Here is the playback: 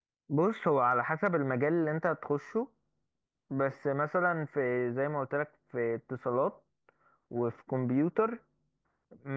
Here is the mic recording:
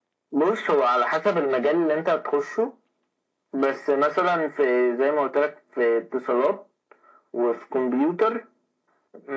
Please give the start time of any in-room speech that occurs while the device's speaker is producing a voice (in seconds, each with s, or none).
none